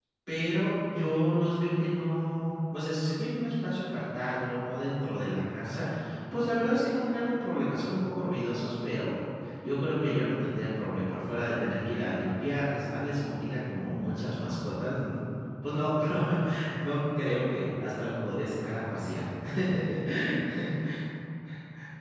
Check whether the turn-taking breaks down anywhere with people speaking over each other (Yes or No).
No